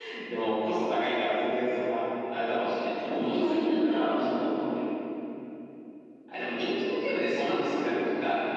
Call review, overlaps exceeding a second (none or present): present